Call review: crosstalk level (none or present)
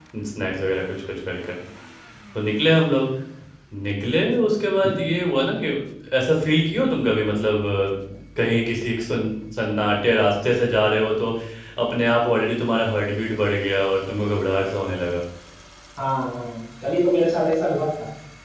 none